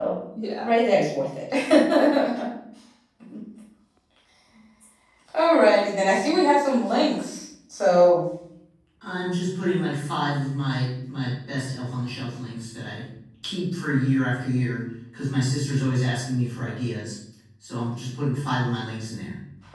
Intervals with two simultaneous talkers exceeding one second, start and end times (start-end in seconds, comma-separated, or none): none